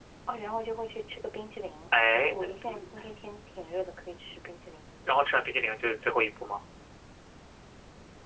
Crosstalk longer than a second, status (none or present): none